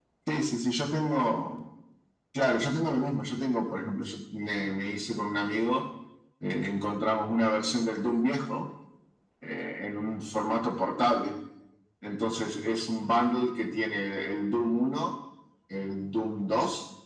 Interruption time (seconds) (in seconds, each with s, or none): none